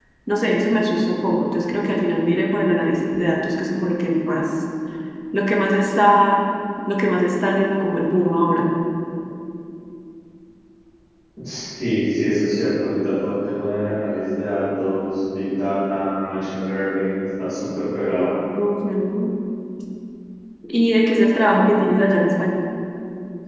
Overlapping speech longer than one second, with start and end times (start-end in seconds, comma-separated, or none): none